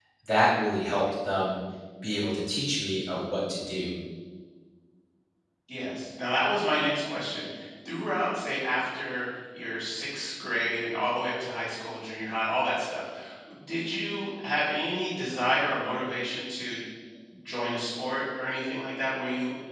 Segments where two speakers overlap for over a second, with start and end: none

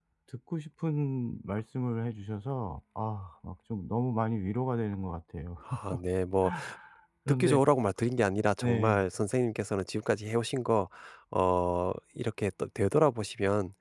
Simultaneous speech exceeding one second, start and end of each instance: none

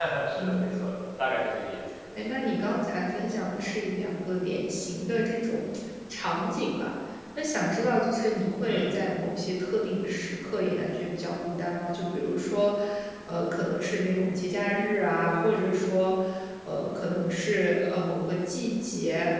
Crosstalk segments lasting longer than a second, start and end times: none

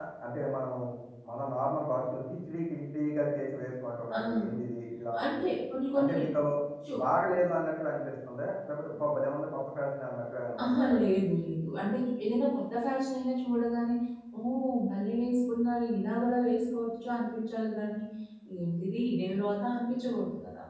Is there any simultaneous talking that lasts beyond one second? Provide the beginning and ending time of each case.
none

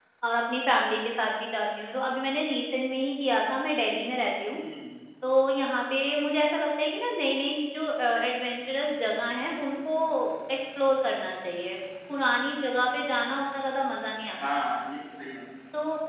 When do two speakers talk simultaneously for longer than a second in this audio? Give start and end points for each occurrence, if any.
none

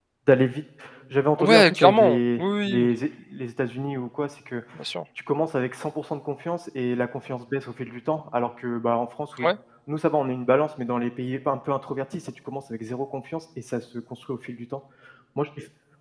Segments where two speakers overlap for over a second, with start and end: 1.4-2.9

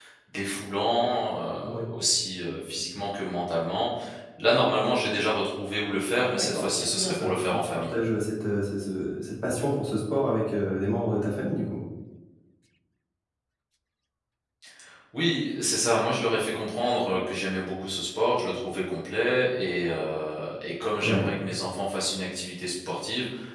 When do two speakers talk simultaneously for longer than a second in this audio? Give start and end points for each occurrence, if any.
6.2-7.8

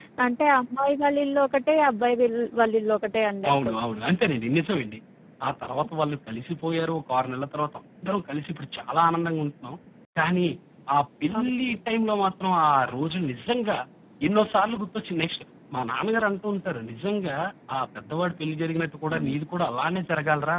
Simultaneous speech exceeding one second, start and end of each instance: none

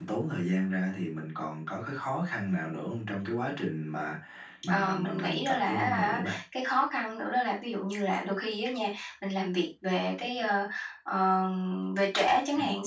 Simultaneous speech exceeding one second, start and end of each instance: 4.7-6.4

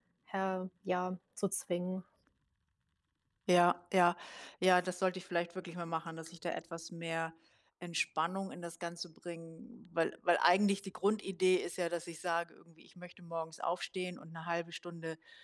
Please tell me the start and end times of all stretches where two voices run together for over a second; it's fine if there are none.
none

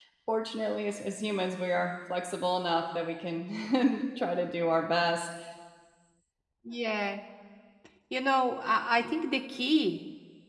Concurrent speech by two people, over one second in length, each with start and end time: none

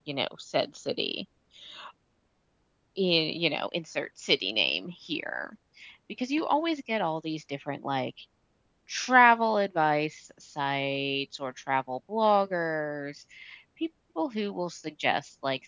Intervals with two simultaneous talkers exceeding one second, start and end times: none

